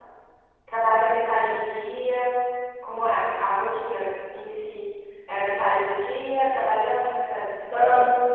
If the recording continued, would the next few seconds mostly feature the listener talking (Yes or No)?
Yes